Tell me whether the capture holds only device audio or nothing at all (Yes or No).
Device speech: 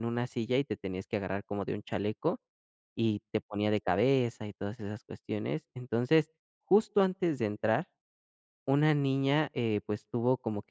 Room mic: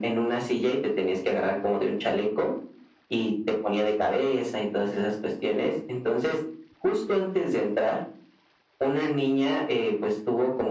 Yes